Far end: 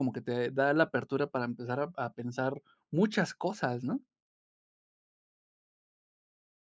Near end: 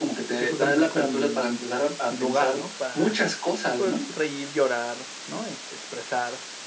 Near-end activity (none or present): present